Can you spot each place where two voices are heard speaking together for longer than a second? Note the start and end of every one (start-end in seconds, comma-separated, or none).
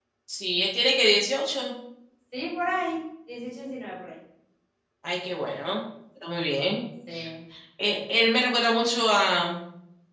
none